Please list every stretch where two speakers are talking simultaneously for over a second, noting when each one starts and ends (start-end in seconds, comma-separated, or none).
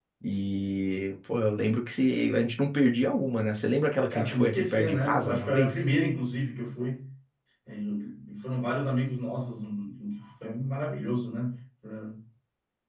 4.1-5.7